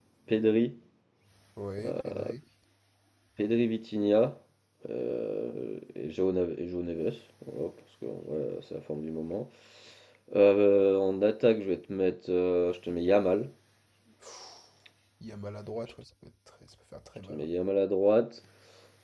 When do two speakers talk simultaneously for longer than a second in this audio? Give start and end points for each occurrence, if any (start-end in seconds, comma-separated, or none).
none